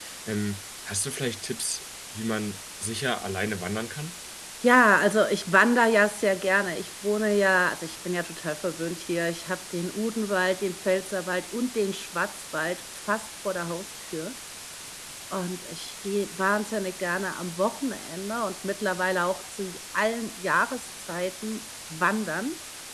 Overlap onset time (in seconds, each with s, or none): none